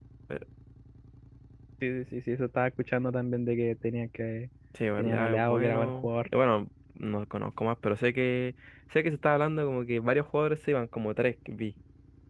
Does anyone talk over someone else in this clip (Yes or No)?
Yes